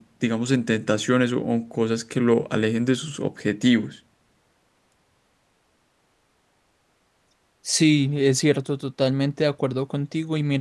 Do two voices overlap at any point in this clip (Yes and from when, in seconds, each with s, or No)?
No